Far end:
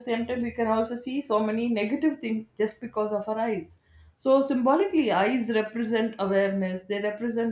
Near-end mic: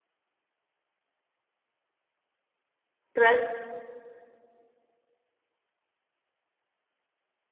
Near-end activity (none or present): present